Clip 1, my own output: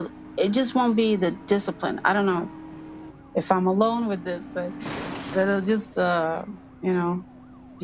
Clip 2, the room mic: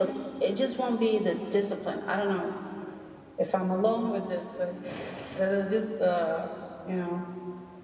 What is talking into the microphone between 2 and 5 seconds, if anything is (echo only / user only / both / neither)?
echo only